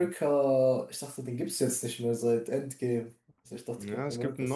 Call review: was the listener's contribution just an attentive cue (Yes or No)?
No